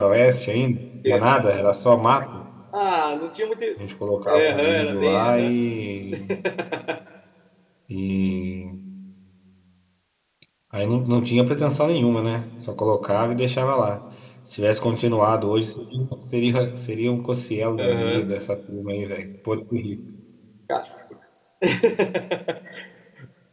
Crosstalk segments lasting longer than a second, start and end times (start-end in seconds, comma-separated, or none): 4.3-5.5